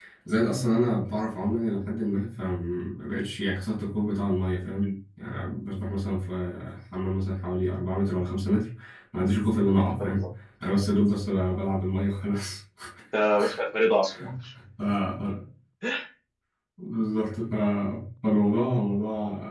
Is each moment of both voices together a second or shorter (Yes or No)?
Yes